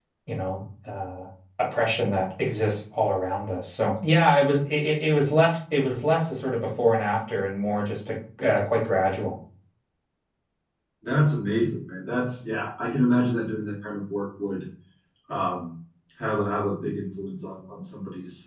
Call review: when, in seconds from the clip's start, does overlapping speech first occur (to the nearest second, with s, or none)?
none